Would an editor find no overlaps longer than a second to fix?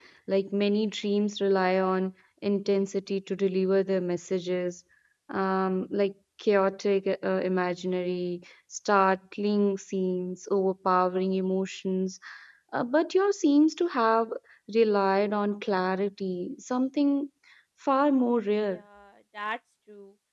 Yes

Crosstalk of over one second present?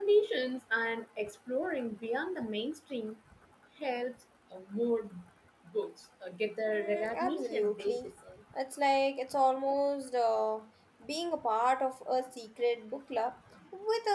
Yes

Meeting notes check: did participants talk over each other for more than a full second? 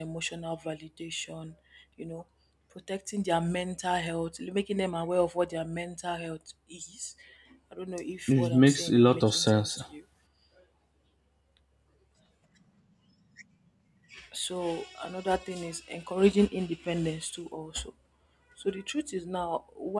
Yes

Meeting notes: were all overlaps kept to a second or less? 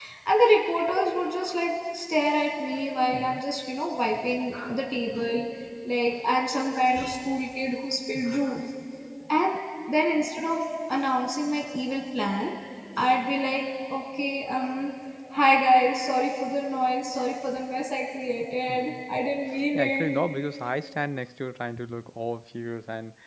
Yes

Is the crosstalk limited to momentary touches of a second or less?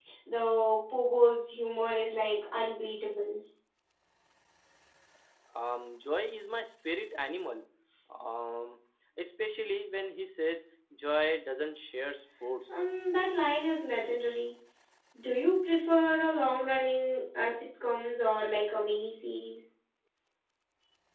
Yes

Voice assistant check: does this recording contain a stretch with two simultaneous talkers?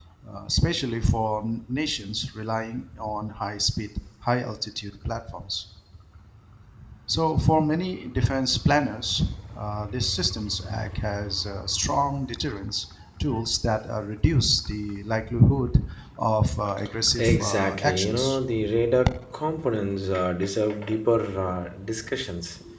Yes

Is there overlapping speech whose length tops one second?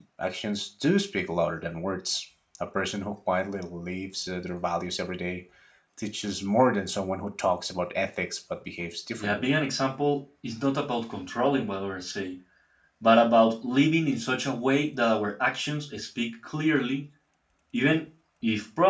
No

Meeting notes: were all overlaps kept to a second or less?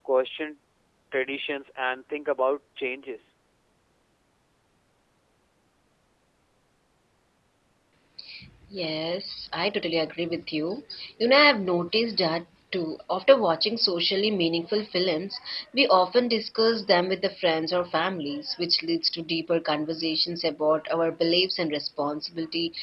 Yes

